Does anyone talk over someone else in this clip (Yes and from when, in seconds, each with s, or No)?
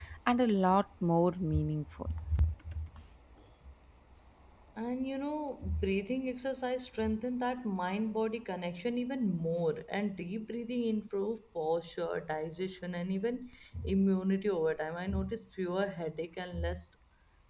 No